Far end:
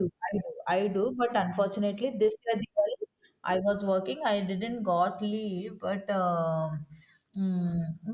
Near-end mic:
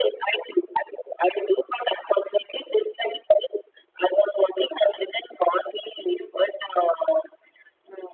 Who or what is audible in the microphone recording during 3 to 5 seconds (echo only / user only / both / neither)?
echo only